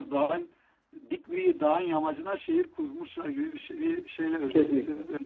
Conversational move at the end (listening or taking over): taking over